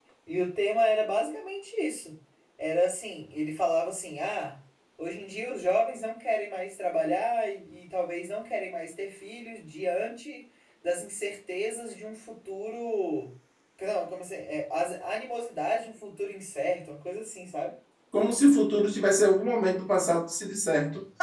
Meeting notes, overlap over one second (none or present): none